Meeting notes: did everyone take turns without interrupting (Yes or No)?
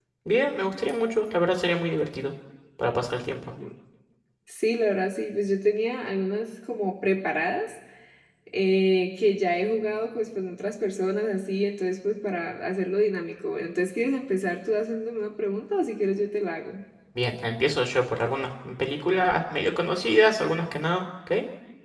Yes